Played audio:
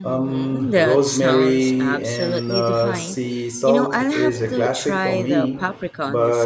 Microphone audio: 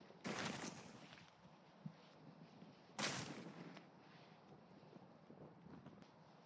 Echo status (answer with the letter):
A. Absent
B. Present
A